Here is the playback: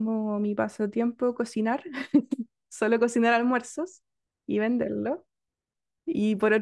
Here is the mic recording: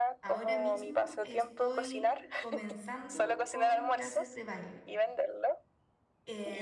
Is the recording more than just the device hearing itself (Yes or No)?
Yes